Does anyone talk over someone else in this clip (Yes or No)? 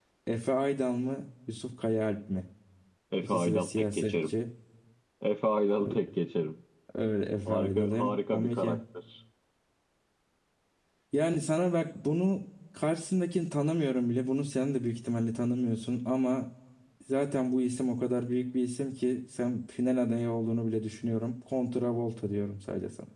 Yes